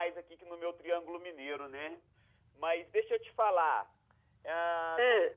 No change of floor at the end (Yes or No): Yes